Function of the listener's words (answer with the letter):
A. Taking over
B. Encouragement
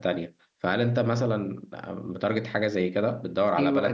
A